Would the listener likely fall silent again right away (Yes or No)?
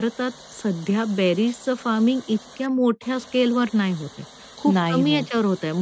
Yes